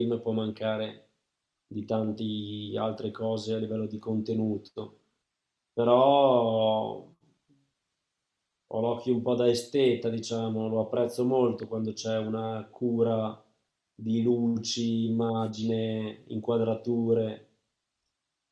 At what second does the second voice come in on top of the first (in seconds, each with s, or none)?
none